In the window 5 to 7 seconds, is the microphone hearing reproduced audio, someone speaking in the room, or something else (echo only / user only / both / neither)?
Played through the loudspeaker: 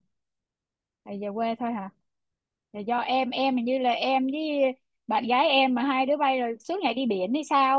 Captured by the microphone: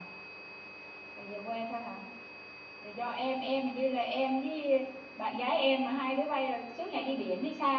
echo only